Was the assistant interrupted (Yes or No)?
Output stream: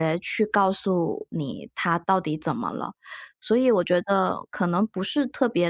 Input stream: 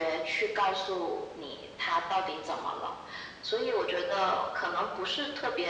No